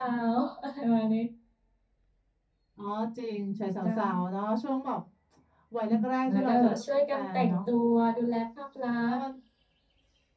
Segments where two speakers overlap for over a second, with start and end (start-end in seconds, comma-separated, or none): 6.3-7.6